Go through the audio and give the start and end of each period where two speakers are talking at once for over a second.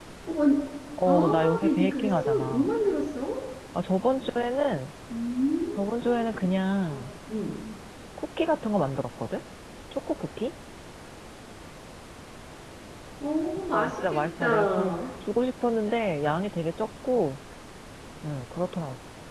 1.1-2.7, 13.7-14.9

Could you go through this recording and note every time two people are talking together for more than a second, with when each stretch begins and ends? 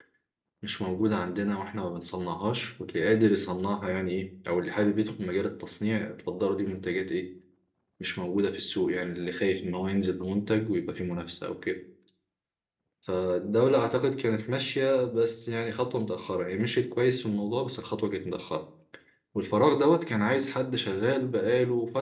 none

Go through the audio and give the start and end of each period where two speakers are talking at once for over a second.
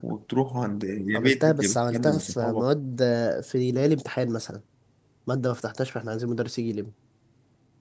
1.1-2.6

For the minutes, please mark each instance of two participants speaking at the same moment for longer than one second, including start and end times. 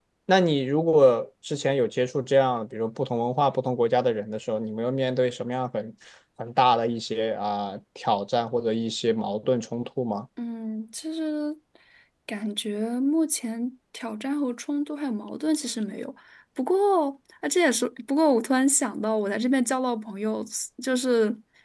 none

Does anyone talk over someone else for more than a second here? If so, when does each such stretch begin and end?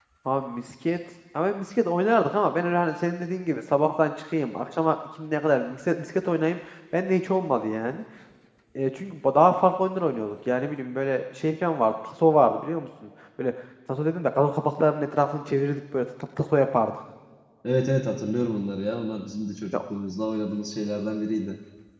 none

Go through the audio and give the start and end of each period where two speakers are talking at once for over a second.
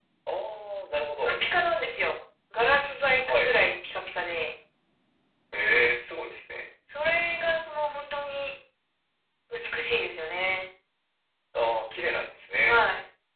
none

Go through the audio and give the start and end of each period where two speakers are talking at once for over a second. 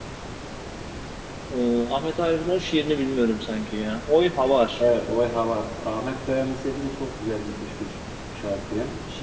none

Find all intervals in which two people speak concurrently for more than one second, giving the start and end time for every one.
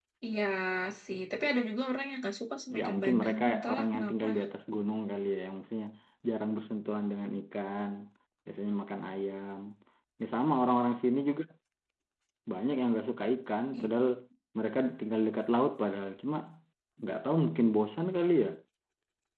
2.8-4.2

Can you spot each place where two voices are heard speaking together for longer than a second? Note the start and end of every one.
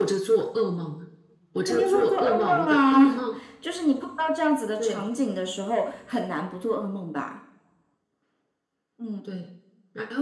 1.6-3.2

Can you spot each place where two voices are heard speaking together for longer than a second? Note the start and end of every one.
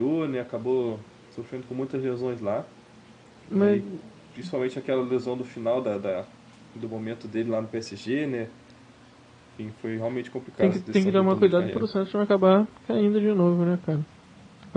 10.6-11.9

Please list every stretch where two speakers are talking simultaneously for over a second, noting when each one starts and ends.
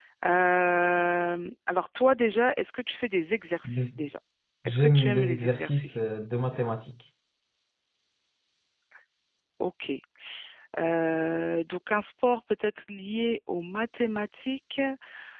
4.7-6.0

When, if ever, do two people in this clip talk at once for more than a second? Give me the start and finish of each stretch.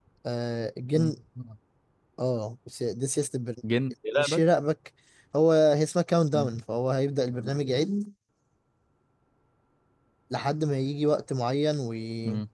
none

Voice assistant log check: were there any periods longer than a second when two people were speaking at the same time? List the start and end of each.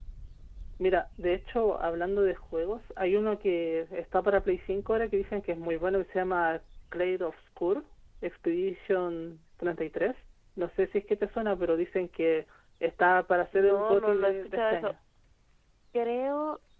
13.5-14.9

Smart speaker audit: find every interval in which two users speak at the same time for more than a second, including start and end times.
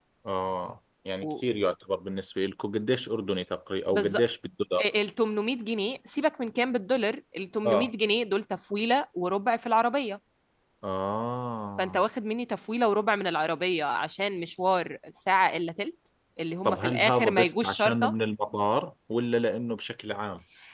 16.6-18.1

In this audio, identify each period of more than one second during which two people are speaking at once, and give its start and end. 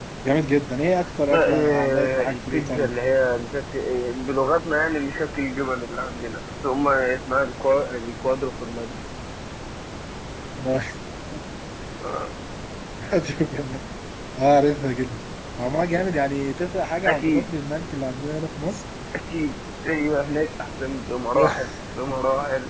1.3-2.9

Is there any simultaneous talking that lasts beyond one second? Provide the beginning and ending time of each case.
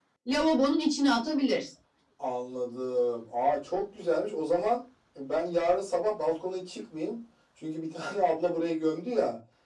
none

